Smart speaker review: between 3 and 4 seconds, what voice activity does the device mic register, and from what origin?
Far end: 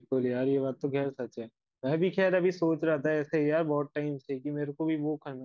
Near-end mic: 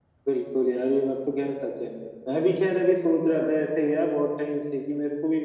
echo only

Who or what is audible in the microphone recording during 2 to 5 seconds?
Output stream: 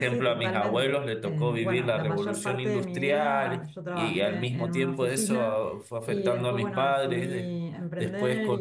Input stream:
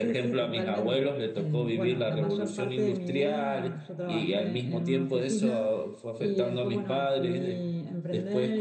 echo only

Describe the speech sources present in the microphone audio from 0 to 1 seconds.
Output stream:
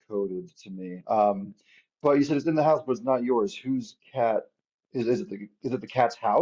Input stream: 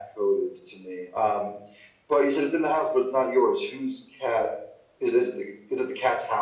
echo only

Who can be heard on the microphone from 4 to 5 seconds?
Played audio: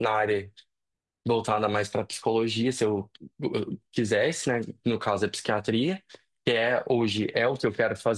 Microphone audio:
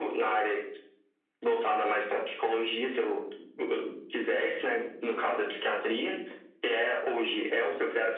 echo only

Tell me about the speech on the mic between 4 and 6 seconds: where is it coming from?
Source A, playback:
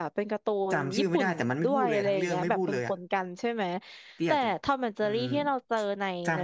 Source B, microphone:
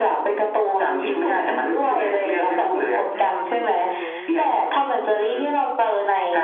both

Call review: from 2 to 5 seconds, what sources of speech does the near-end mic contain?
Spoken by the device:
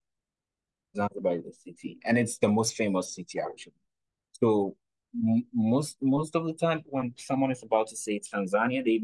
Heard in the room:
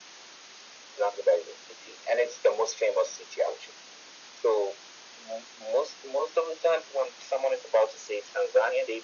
echo only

